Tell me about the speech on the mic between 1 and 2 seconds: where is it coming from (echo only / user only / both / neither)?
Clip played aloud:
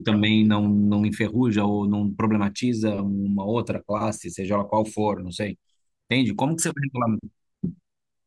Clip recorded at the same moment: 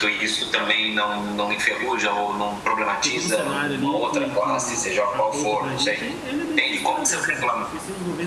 echo only